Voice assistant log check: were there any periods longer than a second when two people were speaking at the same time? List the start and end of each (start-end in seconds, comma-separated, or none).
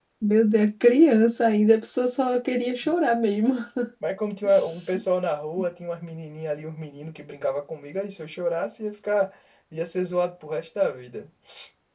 none